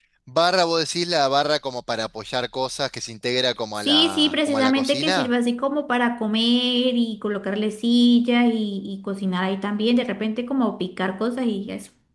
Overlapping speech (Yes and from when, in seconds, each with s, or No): Yes, from 3.8 s